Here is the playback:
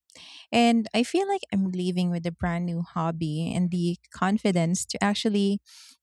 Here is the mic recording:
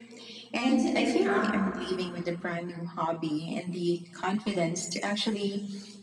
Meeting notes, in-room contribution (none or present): present